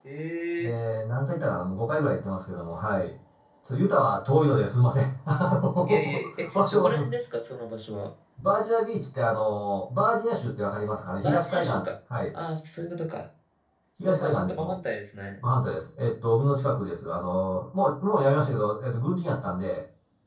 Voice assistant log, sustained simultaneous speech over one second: present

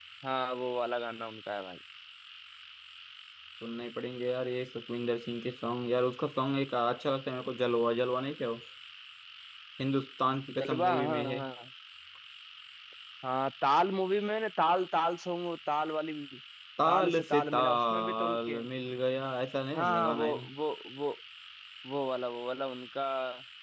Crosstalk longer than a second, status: present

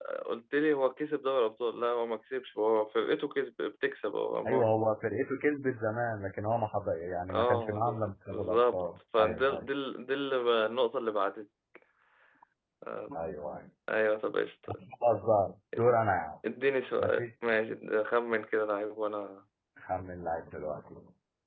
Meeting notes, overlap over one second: present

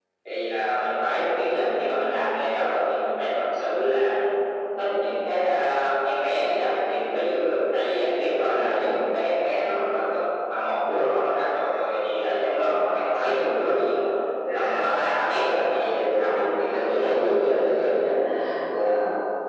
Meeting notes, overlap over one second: present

